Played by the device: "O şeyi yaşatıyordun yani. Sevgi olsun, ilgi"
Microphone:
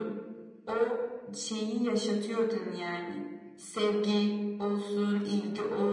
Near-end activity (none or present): none